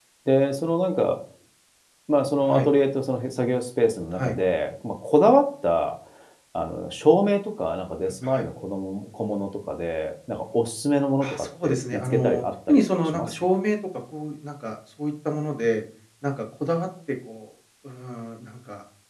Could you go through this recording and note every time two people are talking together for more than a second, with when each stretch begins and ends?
11.2-13.3

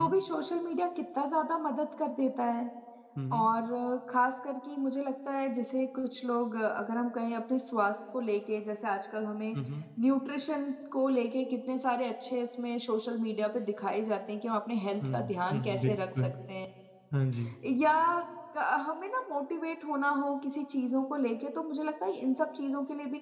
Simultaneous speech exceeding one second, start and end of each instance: 15.0-16.3

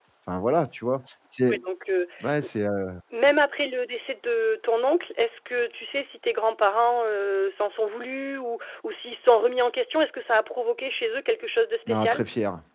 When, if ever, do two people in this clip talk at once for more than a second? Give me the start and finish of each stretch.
none

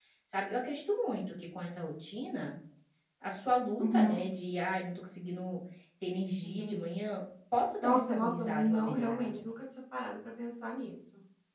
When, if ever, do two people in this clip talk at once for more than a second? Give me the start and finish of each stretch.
7.8-9.4

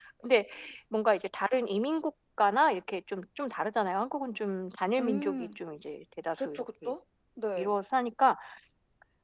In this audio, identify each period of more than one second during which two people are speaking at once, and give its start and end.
none

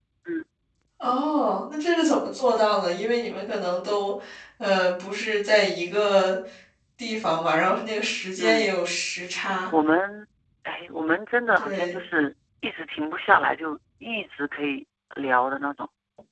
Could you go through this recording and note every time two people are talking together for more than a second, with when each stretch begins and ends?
none

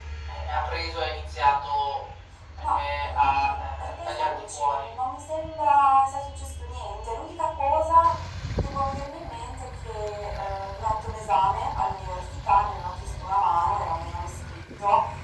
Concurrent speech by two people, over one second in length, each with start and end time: 2.6-4.9

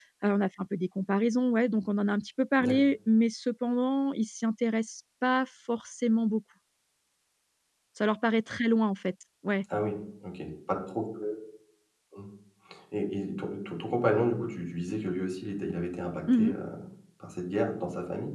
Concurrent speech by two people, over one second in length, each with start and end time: none

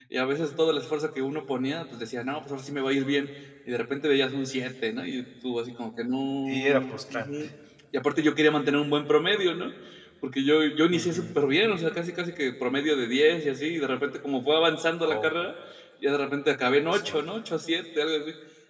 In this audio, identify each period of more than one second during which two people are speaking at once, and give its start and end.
none

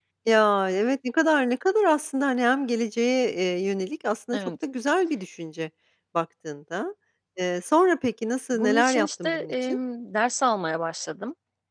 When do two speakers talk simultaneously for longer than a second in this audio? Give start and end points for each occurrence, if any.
8.5-9.8

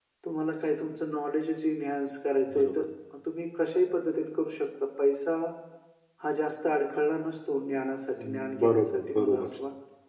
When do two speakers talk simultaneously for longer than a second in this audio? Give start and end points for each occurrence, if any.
8.2-9.5

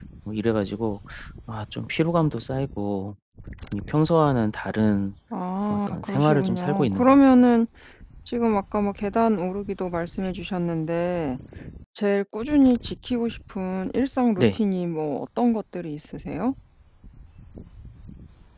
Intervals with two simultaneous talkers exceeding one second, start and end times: 5.7-7.4

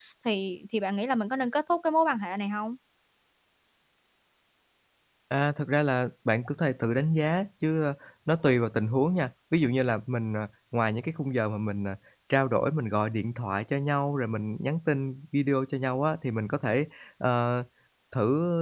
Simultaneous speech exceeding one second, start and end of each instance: none

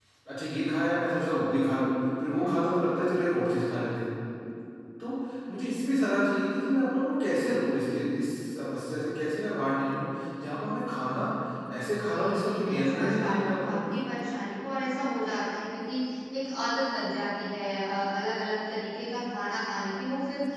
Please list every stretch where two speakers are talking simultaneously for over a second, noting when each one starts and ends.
12.0-13.9

